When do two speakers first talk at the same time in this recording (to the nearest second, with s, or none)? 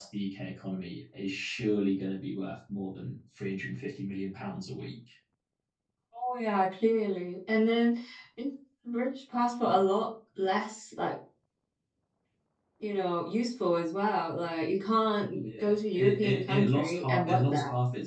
15 s